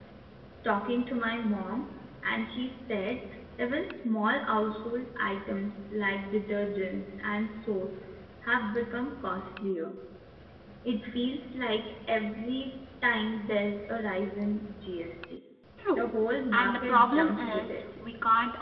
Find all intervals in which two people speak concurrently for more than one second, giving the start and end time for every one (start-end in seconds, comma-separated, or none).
16.5-17.8